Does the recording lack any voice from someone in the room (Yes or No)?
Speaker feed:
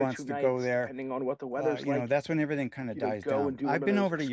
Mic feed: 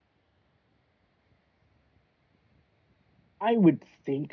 No